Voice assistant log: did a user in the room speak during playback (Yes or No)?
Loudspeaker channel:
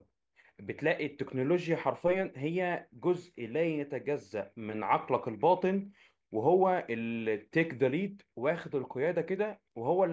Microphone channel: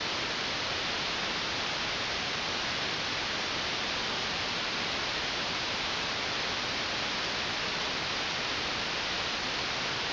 No